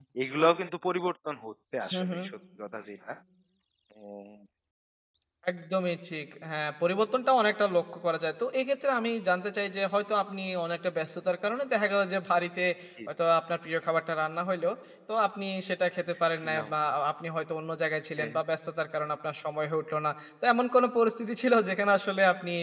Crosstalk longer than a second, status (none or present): none